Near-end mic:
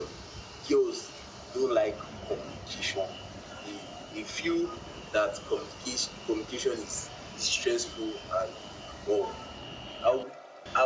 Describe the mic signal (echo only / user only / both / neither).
echo only